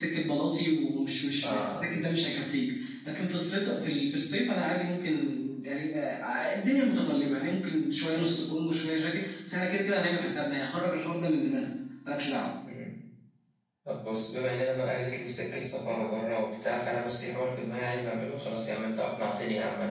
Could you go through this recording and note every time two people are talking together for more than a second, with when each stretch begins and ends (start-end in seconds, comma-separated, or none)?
none